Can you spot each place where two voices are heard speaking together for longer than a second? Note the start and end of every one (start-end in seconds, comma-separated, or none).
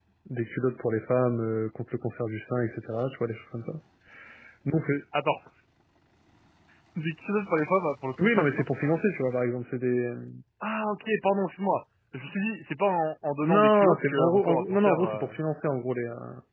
13.4-15.3